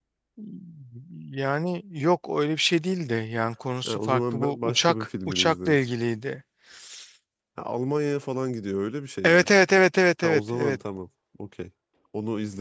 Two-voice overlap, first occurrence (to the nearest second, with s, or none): 4 s